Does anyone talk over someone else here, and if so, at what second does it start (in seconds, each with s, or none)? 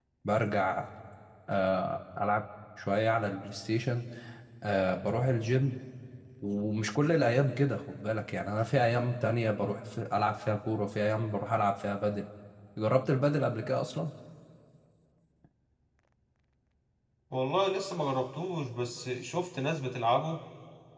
none